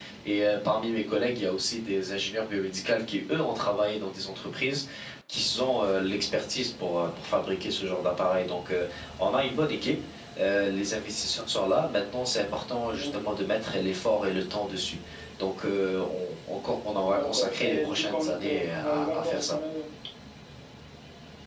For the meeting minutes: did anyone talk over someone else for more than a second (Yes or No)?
Yes